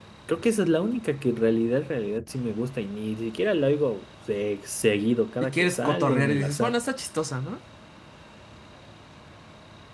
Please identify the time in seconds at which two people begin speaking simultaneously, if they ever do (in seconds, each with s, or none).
5.4 s